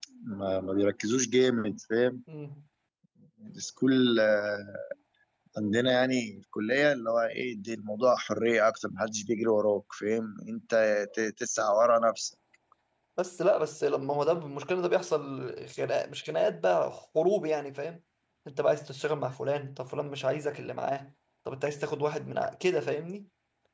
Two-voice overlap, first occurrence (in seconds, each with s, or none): none